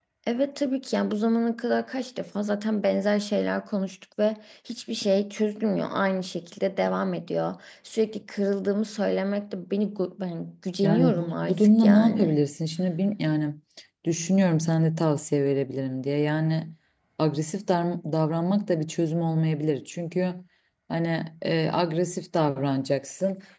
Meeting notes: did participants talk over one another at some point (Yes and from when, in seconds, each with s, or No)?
Yes, from 10.8 s